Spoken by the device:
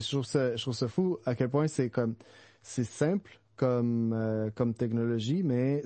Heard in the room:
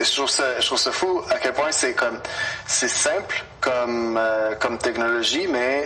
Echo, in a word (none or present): present